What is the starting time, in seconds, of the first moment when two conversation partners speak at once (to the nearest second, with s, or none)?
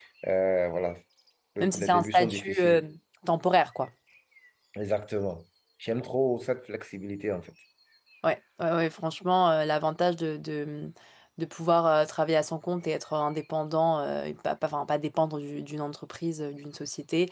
2 s